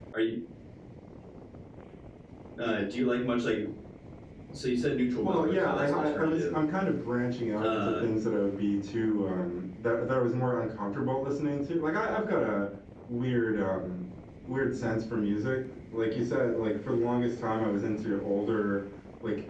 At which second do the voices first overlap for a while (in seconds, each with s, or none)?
5.2 s